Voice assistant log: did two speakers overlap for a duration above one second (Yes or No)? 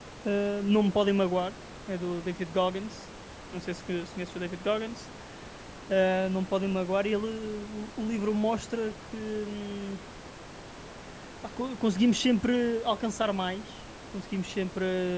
No